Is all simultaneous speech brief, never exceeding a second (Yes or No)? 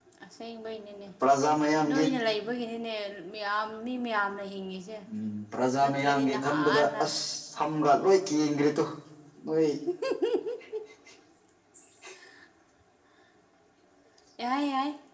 No